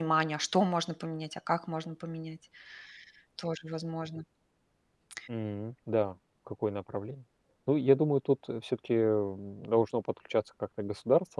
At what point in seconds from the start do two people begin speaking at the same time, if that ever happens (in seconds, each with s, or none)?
none